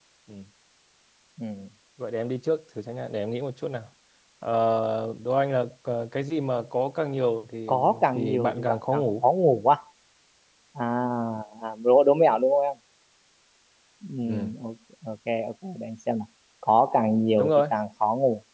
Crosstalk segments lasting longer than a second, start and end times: 7.7-9.0

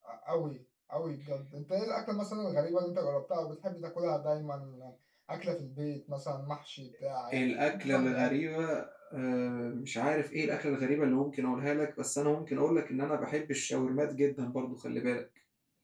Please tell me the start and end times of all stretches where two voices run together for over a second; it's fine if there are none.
none

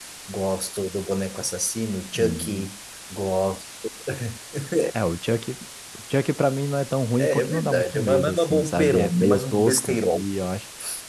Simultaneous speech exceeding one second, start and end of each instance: 7.2-10.2

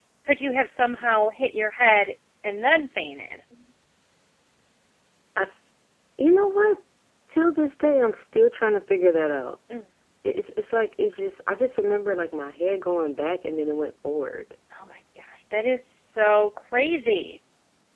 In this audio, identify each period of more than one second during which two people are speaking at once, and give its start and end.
none

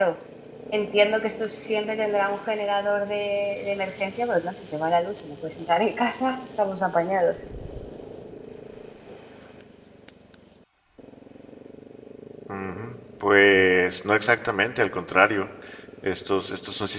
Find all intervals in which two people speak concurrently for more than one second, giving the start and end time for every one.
none

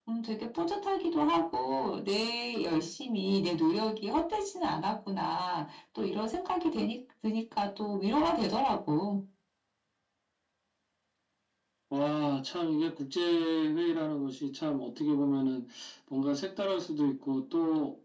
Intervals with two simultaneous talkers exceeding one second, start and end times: none

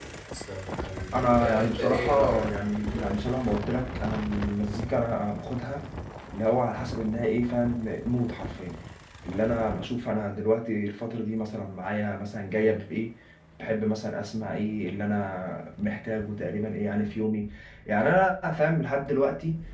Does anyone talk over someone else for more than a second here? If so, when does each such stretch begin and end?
1.1-3.2

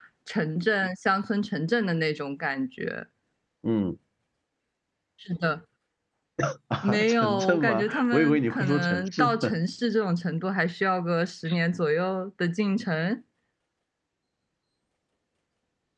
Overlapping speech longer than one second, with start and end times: 6.8-9.5

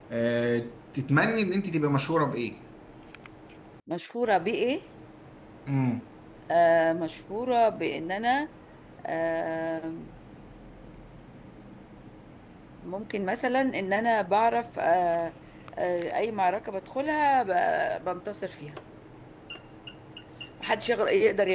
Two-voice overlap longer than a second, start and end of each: none

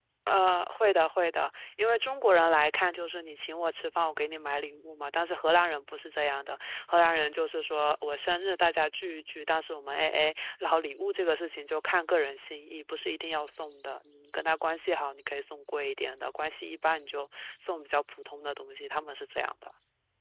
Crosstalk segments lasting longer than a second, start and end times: none

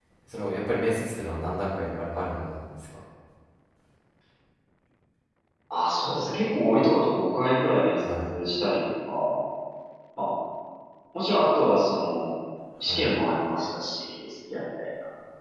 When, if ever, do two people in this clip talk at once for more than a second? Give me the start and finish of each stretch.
none

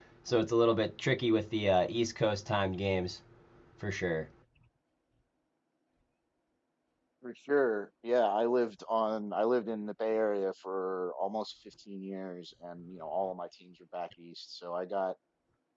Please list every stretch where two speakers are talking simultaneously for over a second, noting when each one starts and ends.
none

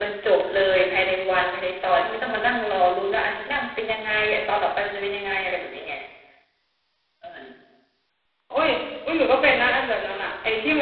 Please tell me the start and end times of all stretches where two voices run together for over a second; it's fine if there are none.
none

